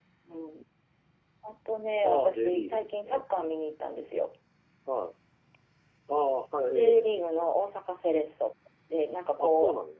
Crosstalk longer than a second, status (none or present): present